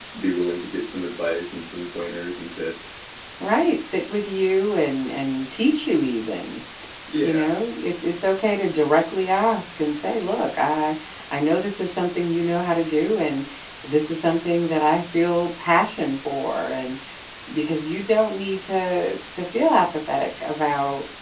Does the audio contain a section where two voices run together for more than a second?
No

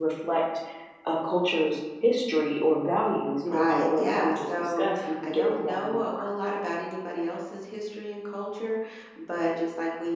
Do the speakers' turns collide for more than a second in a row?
Yes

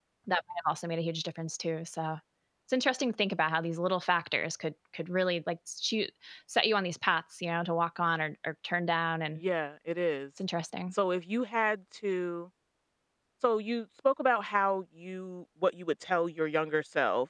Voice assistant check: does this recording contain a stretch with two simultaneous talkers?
No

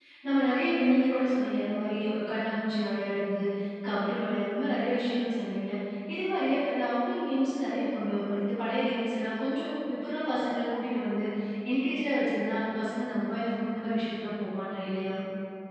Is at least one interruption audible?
No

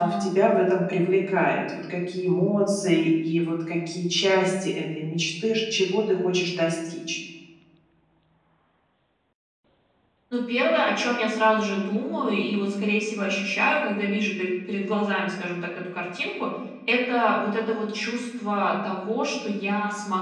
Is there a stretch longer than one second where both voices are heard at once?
No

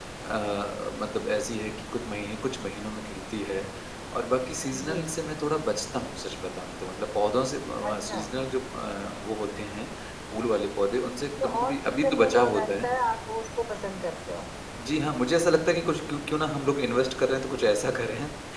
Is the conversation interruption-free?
No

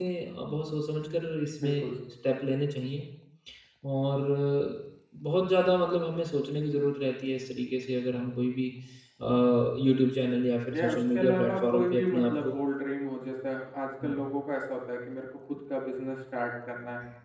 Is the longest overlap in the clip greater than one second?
Yes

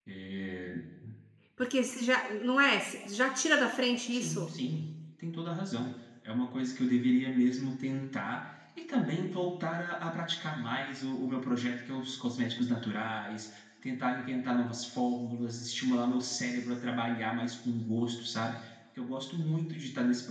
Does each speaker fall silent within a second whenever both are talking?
Yes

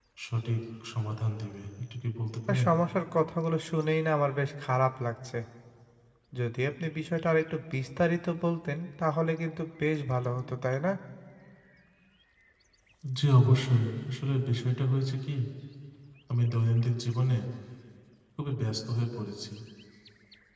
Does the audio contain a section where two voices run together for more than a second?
No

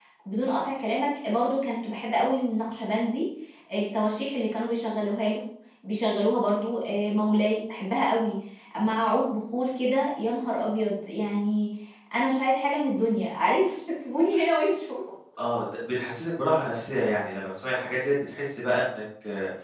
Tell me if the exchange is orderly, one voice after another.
Yes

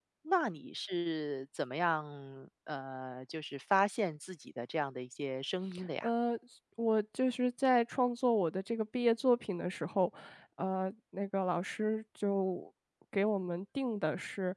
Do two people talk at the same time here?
No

